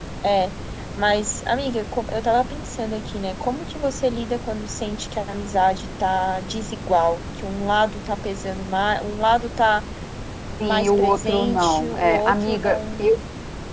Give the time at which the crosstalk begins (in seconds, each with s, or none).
10.6 s